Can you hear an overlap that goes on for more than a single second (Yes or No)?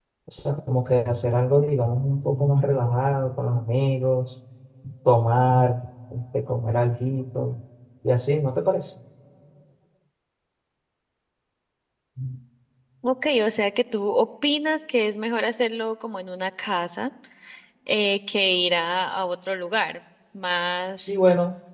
No